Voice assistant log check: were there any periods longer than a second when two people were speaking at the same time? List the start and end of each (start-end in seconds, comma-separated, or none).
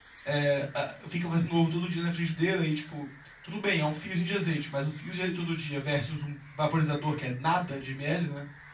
none